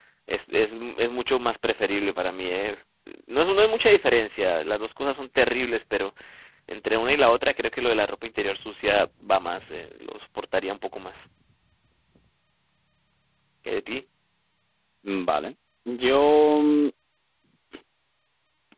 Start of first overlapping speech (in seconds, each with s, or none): none